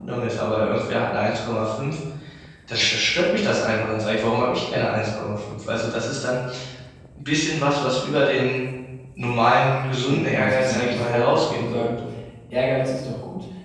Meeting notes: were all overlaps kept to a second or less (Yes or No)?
No